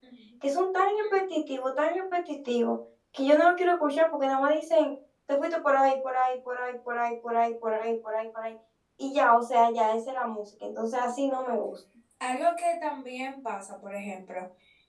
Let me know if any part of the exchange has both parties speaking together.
No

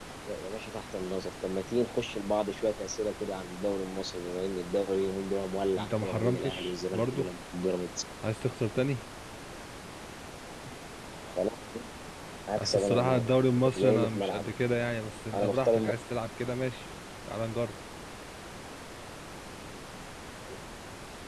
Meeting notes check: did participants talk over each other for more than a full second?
Yes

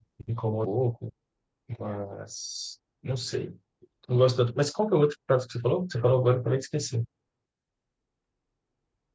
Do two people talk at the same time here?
No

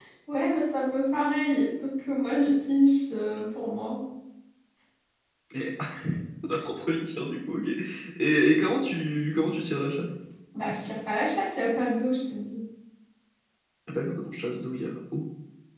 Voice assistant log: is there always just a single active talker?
Yes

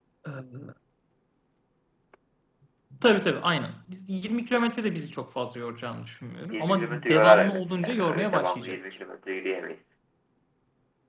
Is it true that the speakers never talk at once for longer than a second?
No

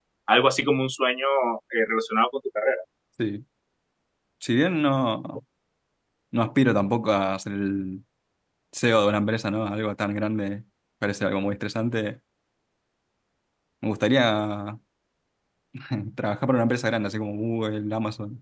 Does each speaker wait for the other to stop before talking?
Yes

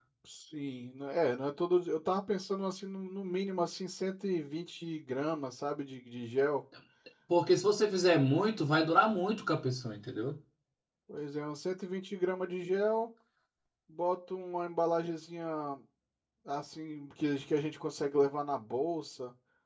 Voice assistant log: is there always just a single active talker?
Yes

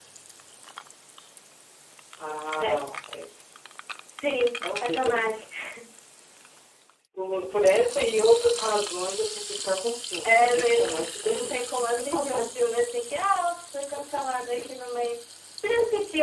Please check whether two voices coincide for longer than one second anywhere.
Yes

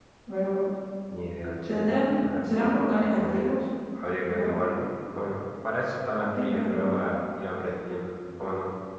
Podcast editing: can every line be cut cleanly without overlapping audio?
No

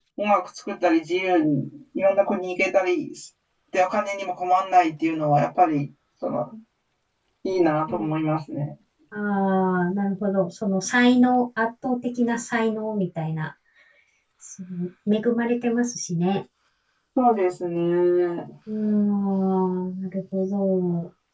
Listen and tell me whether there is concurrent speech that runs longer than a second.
No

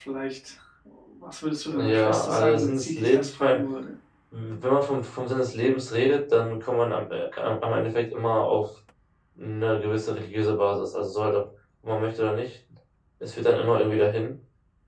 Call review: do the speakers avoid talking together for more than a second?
No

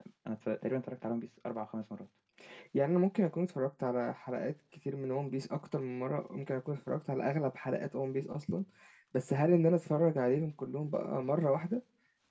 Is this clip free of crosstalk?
Yes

